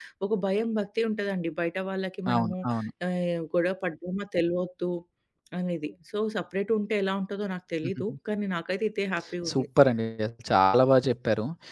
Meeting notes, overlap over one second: none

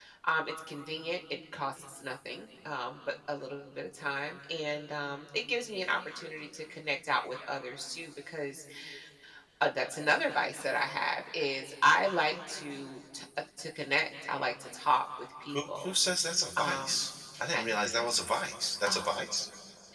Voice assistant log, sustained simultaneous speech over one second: none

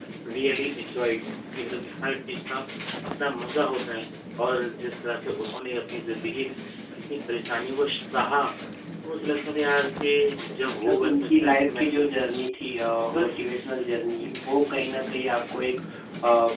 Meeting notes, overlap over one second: present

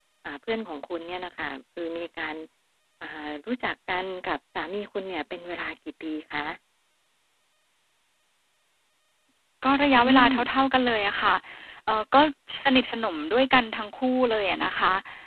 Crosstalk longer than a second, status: none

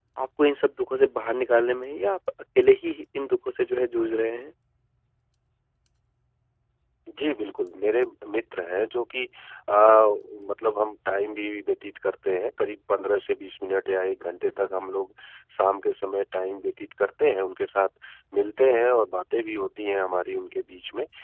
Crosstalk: none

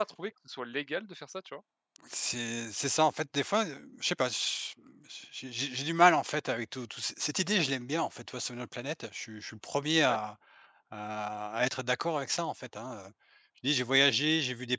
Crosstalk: none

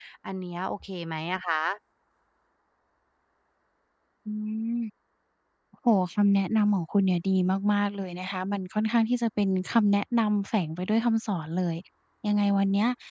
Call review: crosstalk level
none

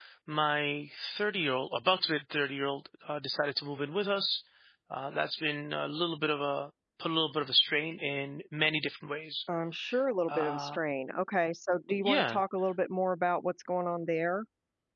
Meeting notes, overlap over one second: none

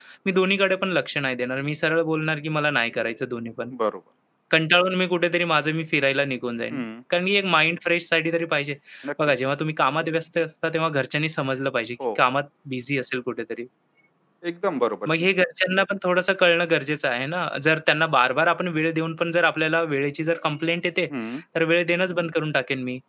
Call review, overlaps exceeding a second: none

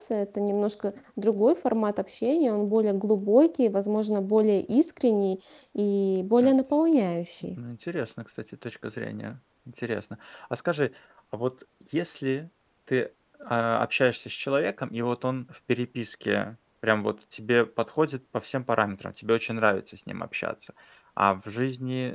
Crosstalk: none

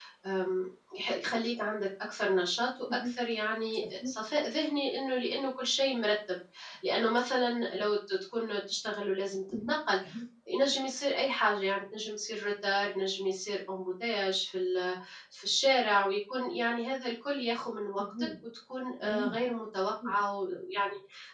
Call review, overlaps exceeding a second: none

